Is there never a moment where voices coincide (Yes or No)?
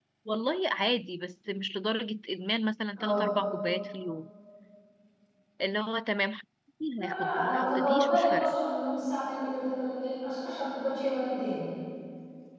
No